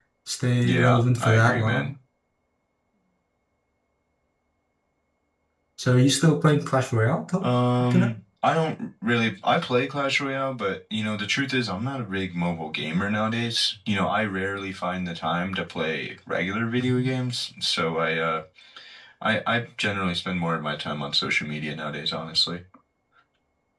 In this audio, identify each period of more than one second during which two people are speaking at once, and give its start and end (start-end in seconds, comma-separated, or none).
0.6-1.9